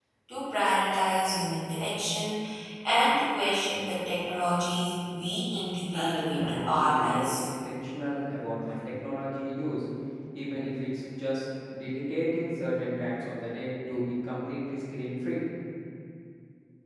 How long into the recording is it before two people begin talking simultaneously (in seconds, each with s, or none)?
5.9 s